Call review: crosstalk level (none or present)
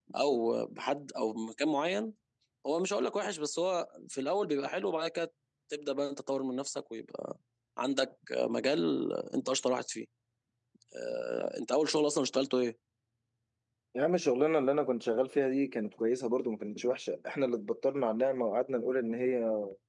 none